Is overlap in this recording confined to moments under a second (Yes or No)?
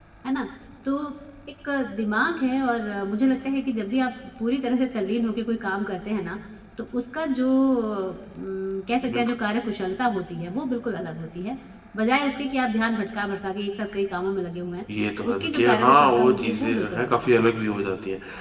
No